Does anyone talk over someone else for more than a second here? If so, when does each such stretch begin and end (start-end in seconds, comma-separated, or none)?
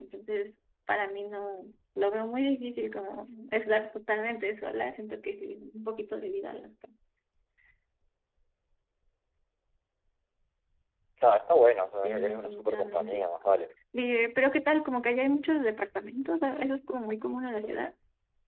12.0-13.3